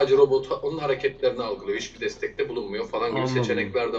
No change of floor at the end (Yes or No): No